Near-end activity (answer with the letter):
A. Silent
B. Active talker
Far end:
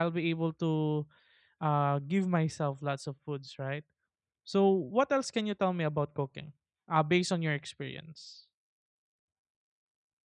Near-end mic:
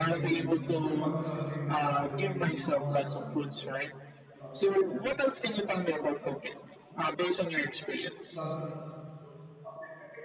B